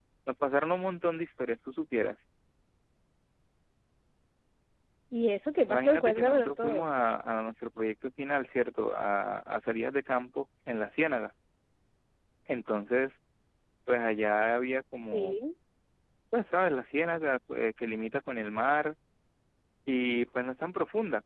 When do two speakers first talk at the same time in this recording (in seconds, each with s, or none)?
5.7 s